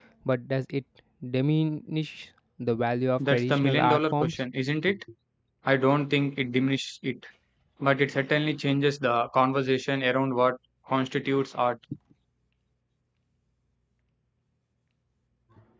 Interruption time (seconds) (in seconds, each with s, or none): 3.2 s